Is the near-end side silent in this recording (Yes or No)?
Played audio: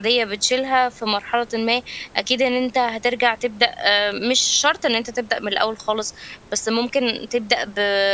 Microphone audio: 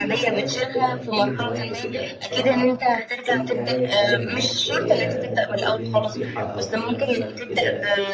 No